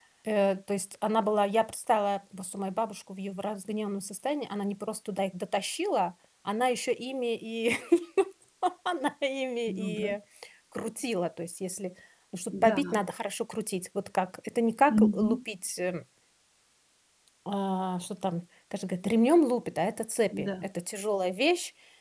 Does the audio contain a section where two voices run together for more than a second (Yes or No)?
No